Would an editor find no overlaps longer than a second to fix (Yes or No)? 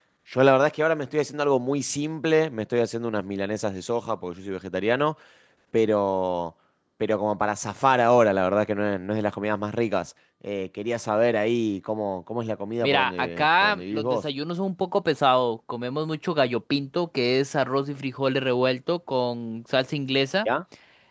No